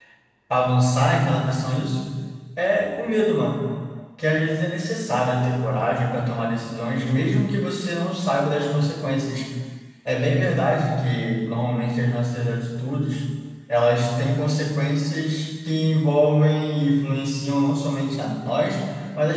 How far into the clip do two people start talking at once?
none

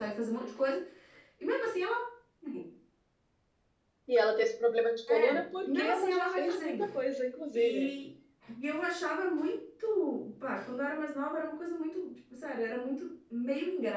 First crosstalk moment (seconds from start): 5.1 s

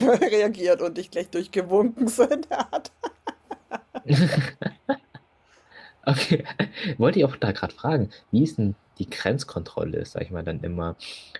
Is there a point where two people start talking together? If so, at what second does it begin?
none

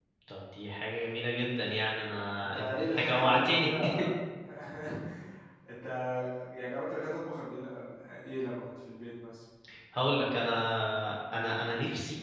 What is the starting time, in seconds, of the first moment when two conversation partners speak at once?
2.4 s

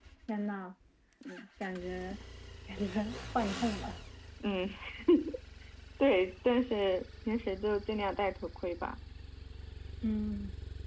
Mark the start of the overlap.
none

